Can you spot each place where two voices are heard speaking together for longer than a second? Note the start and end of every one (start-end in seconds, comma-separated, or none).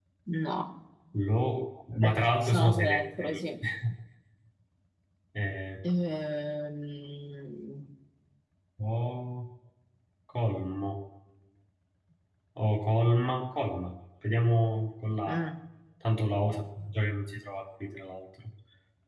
2.0-3.4